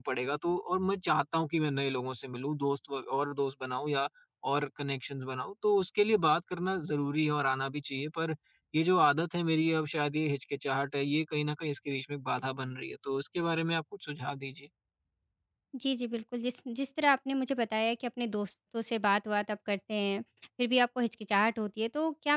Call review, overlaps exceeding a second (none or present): none